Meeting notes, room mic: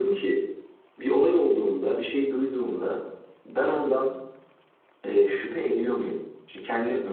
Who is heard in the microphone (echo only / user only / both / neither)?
echo only